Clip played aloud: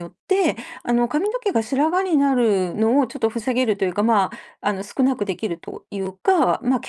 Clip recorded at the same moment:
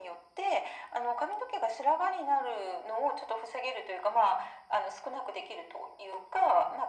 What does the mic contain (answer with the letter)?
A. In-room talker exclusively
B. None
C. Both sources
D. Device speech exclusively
D